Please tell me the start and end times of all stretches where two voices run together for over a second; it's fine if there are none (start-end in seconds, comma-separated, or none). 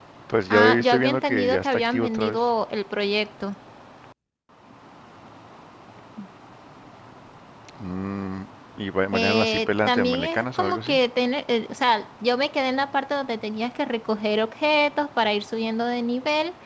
0.5-2.4, 9.1-11.0